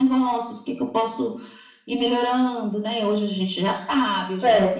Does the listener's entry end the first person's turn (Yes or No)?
No